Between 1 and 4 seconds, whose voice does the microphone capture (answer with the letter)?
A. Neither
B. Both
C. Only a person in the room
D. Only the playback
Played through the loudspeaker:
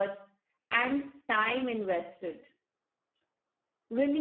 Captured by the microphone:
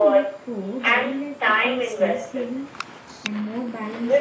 B